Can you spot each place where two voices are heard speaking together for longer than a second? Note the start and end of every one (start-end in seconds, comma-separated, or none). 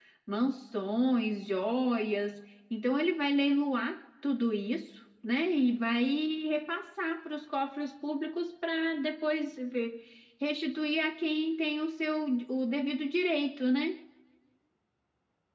none